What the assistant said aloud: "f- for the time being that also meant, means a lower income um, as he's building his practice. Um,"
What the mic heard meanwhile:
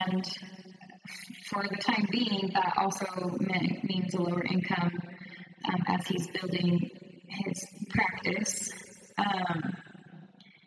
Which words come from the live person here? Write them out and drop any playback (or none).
none